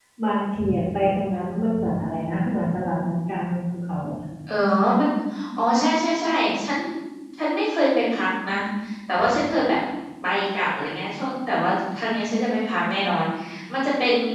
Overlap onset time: none

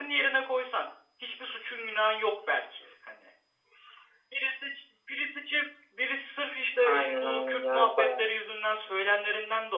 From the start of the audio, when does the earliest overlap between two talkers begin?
6.7 s

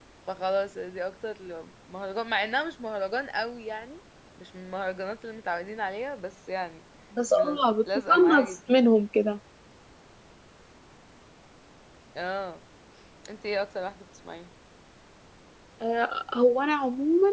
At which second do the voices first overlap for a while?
7.3 s

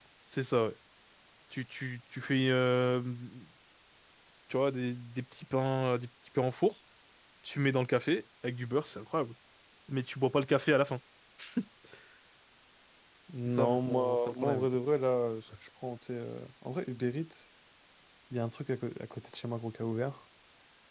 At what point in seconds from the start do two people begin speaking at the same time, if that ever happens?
13.5 s

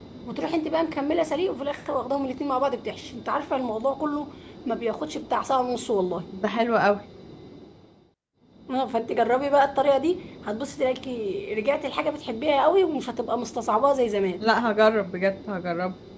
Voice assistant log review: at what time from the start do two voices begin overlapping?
none

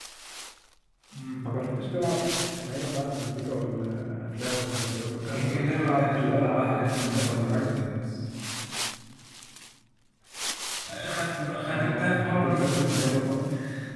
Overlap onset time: 5.3 s

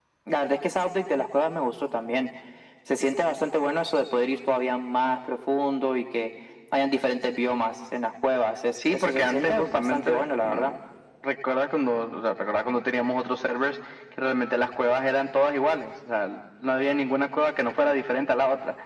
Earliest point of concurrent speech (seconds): 8.8 s

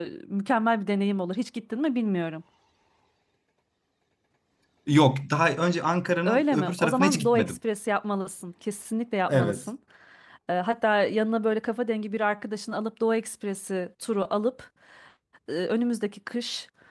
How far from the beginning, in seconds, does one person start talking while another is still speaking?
6.2 s

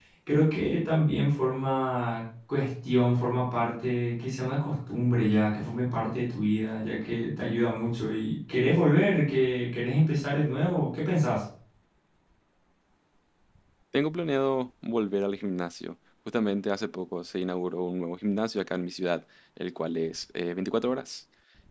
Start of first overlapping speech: none

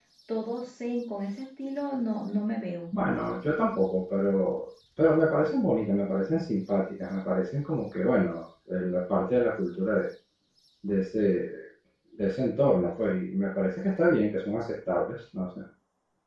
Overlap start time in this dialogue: none

